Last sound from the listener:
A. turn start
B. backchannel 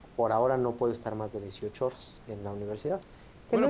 A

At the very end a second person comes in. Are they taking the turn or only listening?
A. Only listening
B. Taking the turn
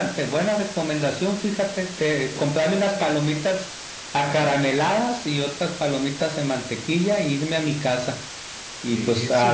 A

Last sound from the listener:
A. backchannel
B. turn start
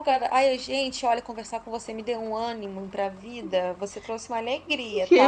B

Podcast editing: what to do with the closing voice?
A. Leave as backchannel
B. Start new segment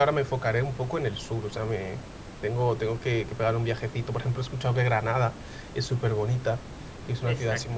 A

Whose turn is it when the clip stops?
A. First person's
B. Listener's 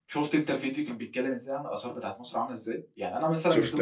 A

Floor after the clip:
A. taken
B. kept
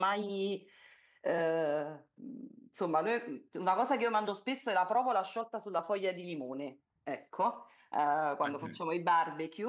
B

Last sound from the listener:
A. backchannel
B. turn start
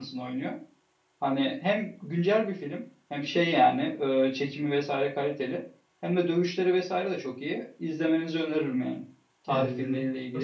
B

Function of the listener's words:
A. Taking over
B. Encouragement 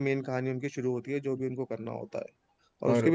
B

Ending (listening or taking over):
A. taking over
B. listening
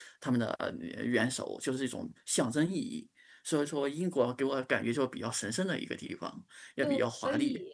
A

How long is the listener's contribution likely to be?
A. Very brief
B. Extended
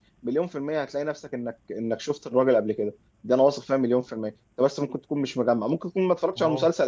A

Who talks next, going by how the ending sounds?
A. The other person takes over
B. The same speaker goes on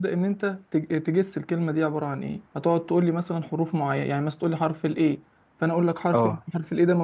B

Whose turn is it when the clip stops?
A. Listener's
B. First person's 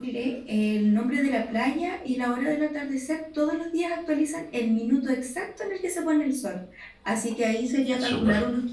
B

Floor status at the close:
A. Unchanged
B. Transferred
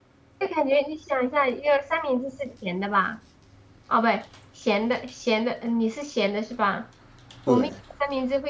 A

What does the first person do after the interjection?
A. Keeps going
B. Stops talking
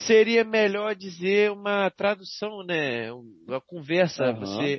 A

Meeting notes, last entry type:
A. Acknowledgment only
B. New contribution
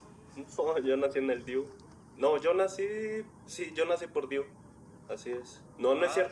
A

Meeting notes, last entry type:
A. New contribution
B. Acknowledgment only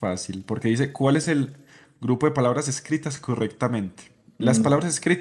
B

